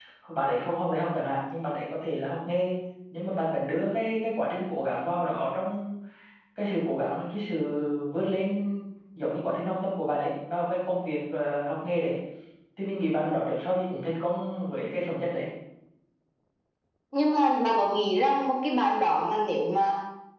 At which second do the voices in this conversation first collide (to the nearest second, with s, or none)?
none